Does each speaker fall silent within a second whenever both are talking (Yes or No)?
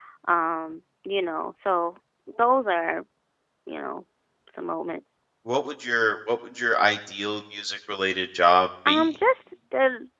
Yes